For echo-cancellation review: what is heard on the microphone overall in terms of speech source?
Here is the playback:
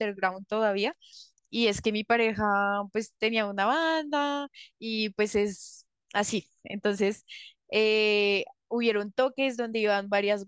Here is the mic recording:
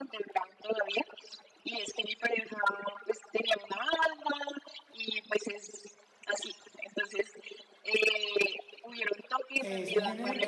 both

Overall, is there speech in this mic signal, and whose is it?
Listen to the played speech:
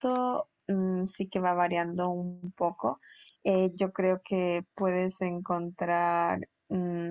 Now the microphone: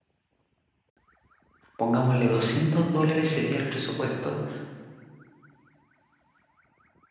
user only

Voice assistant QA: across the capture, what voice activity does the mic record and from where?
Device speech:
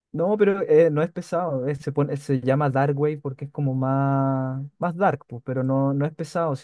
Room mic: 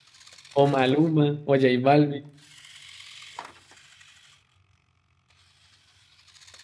user only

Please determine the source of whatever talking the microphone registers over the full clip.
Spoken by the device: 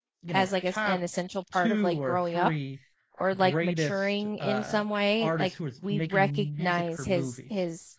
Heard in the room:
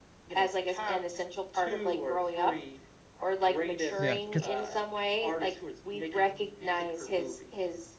both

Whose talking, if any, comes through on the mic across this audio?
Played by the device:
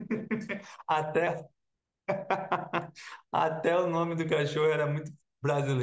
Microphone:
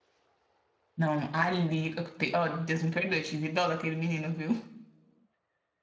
user only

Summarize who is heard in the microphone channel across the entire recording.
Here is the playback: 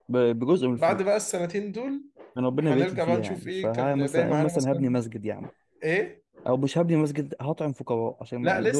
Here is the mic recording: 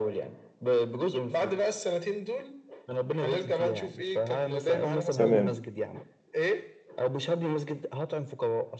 both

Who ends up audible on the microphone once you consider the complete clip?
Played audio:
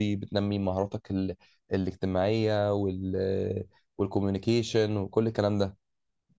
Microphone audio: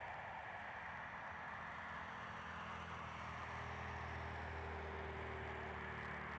neither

